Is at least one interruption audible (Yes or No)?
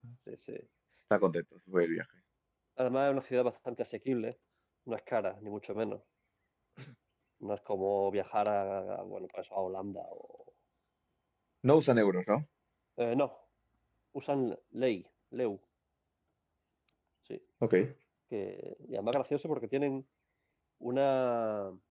No